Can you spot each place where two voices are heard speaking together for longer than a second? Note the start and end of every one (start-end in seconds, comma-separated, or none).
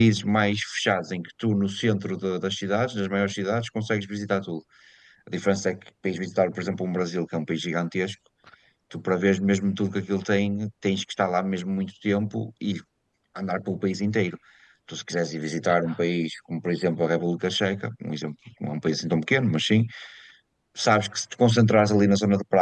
none